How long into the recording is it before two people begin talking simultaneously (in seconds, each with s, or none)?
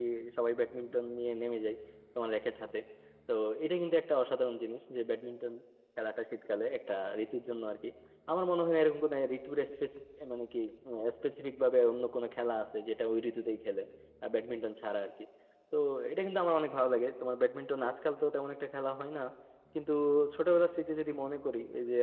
none